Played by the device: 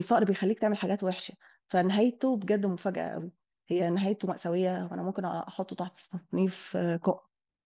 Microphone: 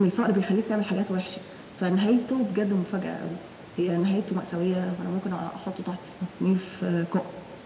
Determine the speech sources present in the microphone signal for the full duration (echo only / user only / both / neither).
echo only